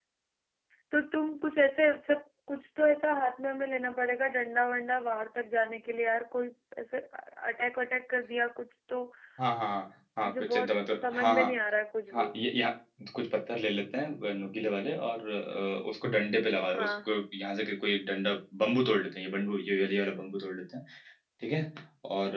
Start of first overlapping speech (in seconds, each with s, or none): 10.2 s